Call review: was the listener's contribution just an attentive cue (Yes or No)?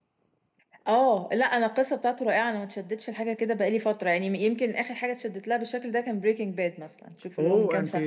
No